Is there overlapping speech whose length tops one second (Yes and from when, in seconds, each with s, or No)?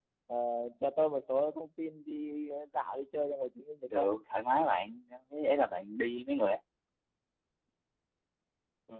No